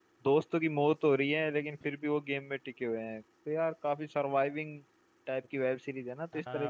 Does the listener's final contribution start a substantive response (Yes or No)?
Yes